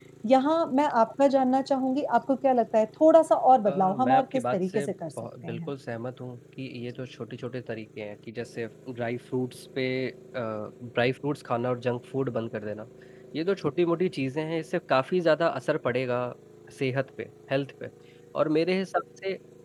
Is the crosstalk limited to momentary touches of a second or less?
No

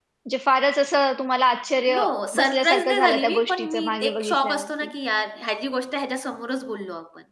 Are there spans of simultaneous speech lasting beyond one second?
Yes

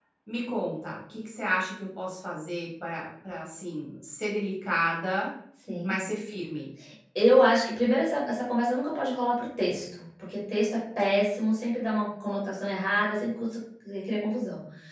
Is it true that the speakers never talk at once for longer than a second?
Yes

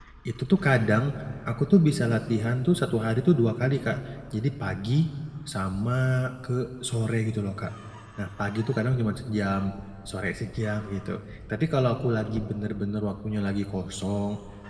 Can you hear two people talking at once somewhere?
No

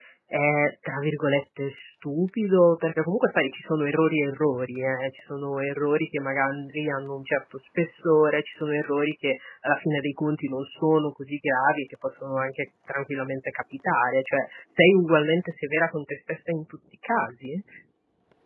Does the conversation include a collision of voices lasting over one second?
No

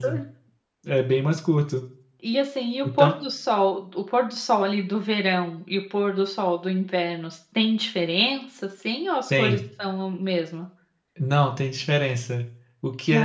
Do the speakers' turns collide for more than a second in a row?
No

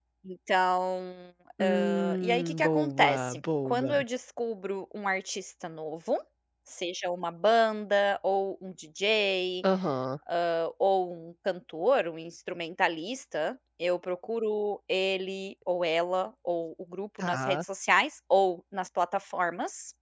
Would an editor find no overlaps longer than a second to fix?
No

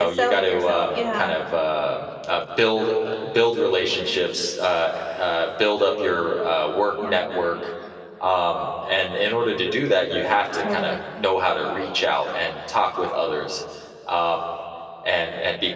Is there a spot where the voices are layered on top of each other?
Yes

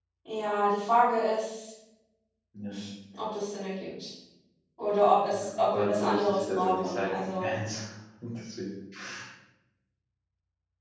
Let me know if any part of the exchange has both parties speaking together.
Yes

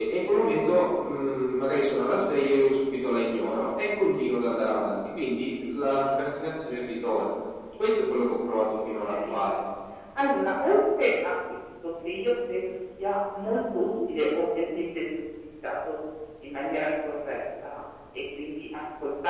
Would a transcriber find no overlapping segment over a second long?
Yes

